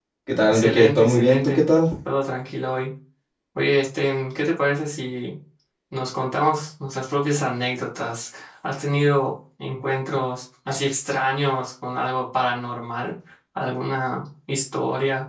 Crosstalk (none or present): present